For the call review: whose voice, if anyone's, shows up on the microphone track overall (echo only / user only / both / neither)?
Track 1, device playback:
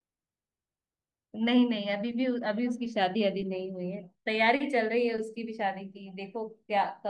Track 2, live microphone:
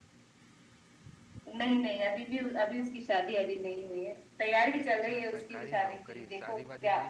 both